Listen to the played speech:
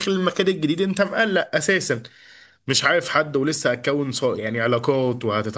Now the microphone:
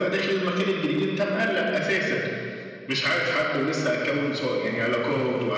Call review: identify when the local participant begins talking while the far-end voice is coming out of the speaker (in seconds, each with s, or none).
none